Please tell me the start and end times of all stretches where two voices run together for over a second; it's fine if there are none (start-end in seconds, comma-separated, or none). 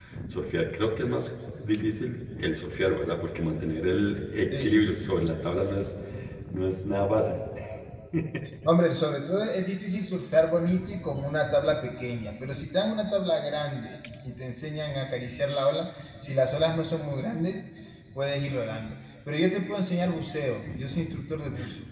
none